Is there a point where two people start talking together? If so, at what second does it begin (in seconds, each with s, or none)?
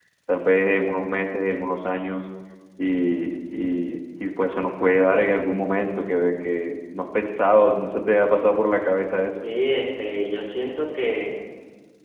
none